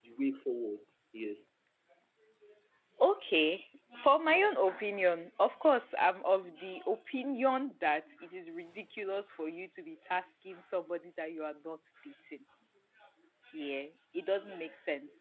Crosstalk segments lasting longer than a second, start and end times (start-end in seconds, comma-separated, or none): none